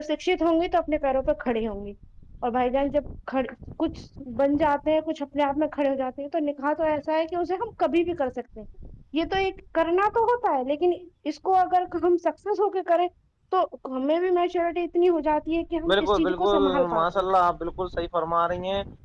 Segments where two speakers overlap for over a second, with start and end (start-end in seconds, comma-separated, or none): 15.9-17.2